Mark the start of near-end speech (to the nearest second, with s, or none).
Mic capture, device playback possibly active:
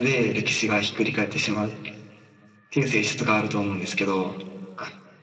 none